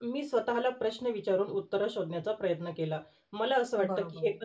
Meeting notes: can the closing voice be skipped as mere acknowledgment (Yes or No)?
Yes